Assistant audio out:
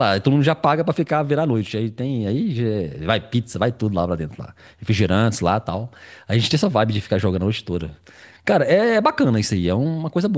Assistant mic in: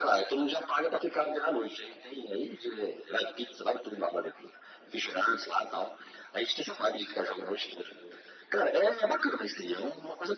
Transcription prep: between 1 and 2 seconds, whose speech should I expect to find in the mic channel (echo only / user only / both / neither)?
echo only